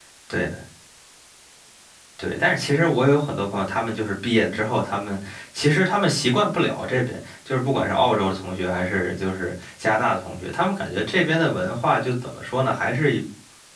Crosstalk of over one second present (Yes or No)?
No